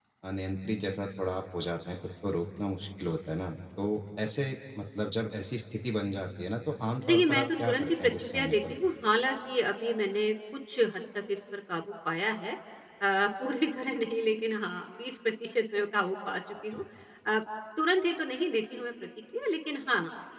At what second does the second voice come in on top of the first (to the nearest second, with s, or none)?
7 s